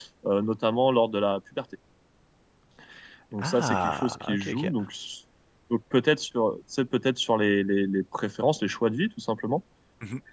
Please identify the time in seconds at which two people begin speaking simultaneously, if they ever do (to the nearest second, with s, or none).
3 s